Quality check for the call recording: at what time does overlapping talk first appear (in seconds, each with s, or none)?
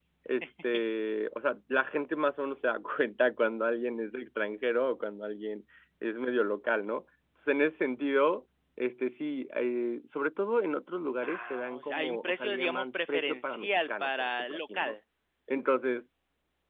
11.2 s